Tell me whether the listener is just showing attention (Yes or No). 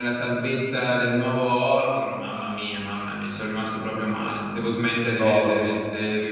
Yes